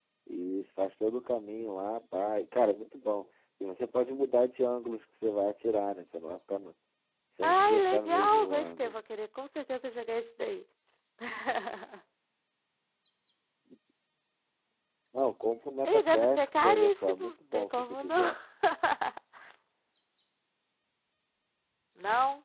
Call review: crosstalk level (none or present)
present